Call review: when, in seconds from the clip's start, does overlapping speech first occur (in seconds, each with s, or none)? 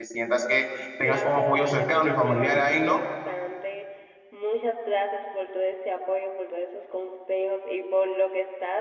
1.1 s